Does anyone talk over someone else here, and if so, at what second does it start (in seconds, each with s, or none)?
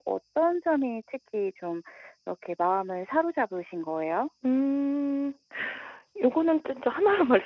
none